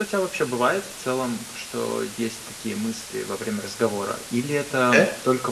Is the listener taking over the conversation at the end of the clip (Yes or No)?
No